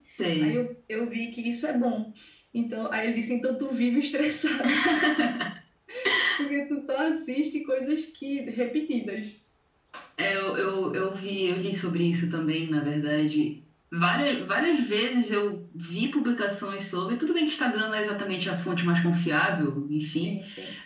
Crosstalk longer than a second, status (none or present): none